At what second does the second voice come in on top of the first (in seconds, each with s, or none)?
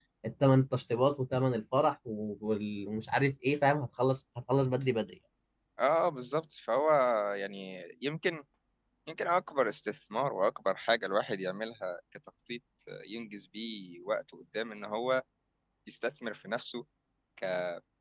none